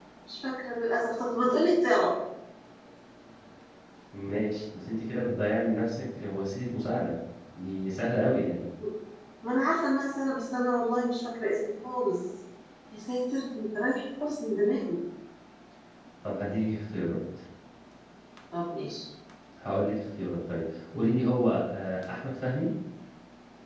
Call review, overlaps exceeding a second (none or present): none